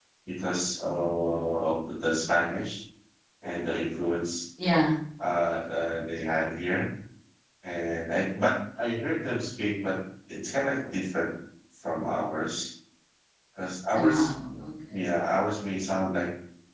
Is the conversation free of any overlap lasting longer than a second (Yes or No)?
Yes